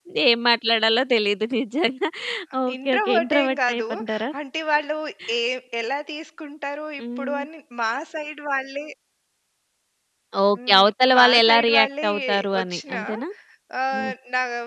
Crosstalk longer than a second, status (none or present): present